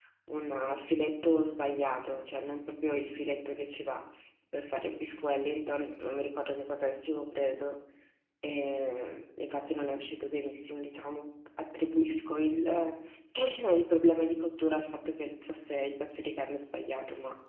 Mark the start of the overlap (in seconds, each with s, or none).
none